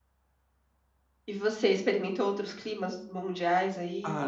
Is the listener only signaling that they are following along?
No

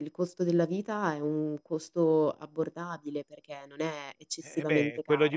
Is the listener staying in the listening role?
No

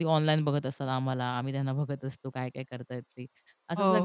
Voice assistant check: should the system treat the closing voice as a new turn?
No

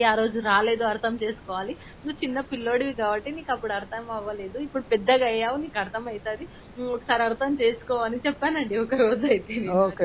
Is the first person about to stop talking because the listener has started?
Yes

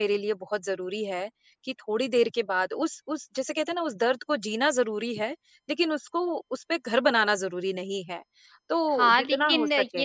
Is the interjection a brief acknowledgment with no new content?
No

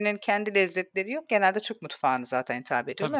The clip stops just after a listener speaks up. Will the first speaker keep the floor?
Yes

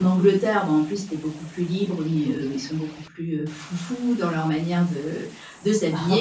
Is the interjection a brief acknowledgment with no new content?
Yes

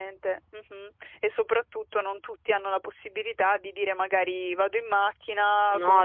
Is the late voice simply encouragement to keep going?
Yes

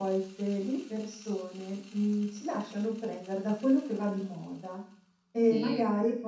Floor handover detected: No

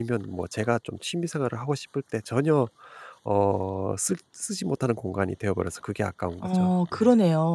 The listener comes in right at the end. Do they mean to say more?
Yes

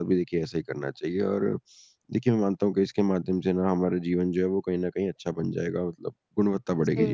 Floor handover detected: Yes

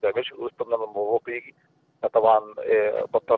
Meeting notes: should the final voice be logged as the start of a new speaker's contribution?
No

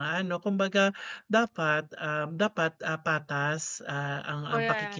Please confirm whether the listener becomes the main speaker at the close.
No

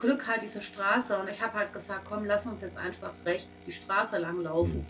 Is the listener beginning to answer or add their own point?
Yes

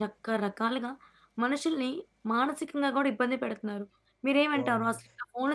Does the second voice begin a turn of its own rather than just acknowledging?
No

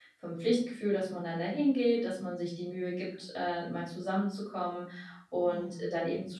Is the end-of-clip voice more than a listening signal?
No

